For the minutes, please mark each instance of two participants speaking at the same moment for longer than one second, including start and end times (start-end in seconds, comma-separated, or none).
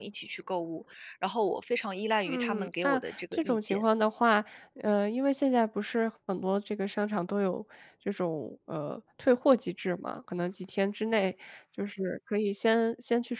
2.3-3.8